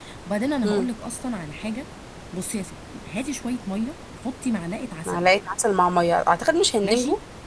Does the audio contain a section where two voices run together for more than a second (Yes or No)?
No